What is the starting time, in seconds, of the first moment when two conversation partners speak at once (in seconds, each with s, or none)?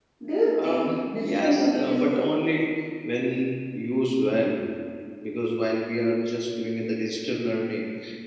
0.6 s